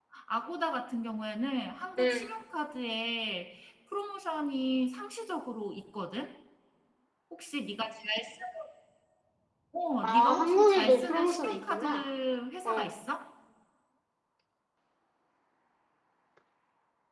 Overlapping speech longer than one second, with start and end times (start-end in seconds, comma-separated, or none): 10.0-12.0